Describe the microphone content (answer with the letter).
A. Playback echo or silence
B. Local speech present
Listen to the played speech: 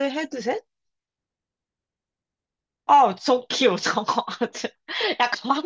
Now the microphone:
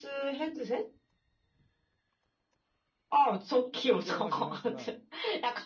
B